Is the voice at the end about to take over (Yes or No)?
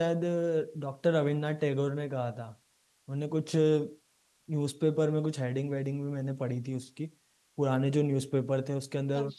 No